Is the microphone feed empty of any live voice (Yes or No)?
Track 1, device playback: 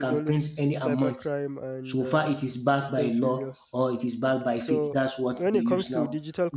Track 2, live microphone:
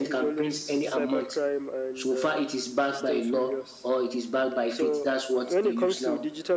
Yes